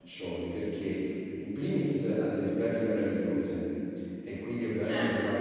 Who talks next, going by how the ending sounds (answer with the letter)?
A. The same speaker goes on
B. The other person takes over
A